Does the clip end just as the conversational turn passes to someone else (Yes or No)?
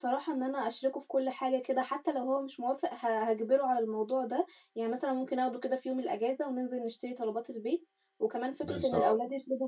No